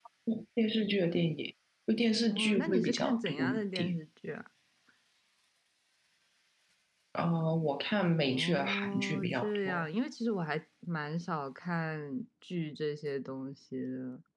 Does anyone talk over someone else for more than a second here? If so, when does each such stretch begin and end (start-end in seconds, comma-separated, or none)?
2.3-4.0, 8.2-9.9